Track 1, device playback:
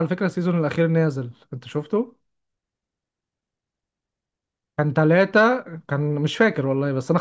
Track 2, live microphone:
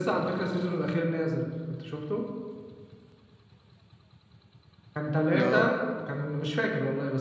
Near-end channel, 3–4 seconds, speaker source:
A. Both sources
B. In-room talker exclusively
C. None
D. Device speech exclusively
C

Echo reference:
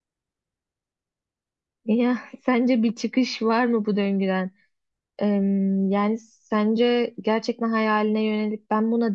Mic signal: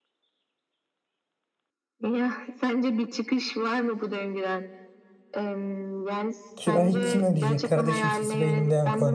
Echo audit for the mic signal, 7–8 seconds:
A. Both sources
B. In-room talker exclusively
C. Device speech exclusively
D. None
A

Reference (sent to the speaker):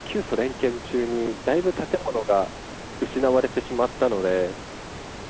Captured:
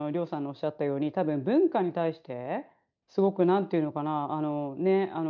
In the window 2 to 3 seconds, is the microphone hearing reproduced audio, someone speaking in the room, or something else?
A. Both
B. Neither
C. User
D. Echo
C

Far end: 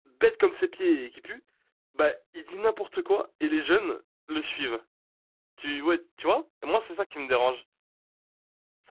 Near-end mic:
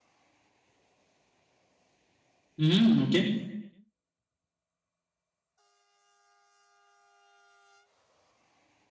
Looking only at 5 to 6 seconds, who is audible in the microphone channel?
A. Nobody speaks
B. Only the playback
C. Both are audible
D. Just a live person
A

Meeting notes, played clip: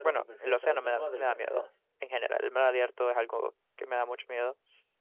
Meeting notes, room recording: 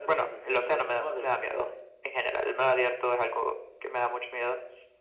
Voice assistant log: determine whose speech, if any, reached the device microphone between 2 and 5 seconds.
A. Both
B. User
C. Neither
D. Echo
D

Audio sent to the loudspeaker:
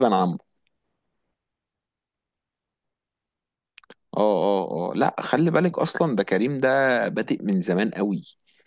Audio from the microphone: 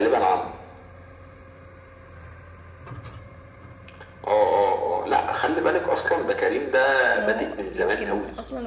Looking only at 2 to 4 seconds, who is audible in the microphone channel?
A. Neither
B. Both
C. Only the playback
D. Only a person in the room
A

